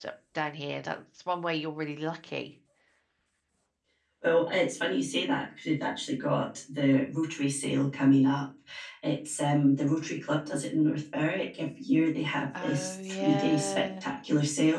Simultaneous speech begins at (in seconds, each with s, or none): 12.5 s